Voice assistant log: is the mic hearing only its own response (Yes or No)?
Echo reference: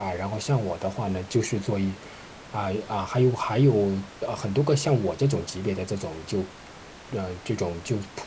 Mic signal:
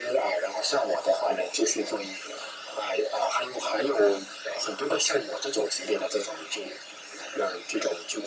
Yes